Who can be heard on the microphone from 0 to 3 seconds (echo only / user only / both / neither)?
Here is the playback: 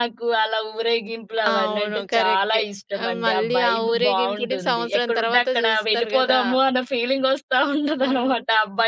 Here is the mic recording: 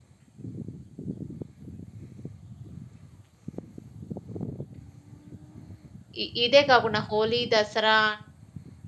neither